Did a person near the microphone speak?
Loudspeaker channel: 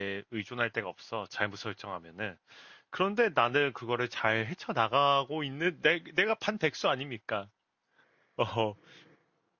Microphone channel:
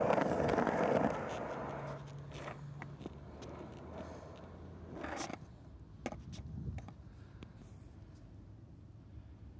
No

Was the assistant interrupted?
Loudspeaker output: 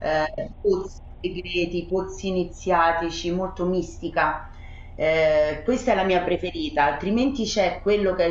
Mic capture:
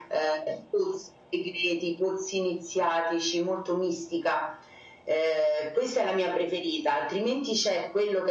No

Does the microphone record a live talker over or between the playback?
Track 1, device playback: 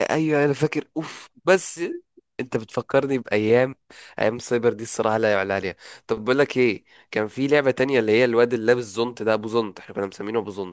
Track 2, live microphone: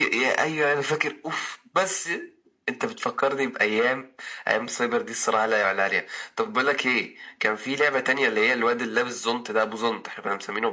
No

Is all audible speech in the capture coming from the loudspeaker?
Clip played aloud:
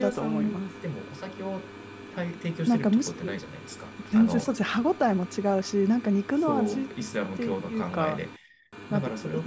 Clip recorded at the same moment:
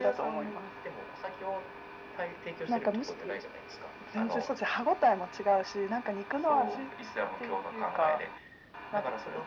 Yes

